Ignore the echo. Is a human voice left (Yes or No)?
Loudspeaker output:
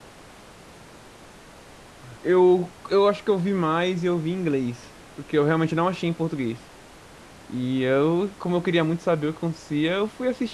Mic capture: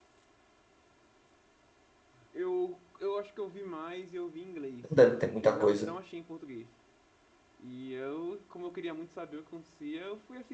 Yes